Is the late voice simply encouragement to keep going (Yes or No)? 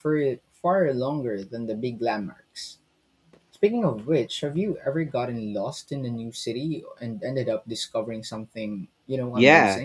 No